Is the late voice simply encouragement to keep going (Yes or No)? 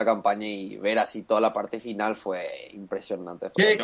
Yes